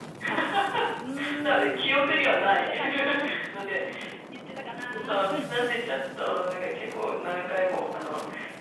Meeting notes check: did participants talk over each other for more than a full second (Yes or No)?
Yes